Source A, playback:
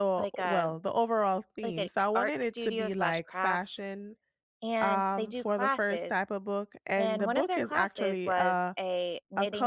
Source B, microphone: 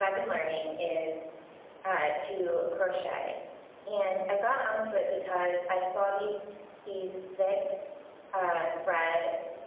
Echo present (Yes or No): No